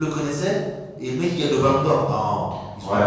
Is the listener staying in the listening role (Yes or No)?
No